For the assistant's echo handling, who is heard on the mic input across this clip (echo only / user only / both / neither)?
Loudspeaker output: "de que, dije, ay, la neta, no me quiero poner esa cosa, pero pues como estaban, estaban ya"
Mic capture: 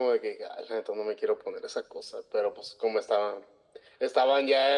echo only